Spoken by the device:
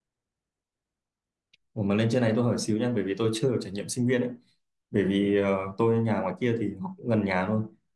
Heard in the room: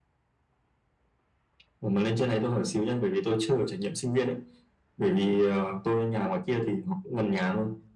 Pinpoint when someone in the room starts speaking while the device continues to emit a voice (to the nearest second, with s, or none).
none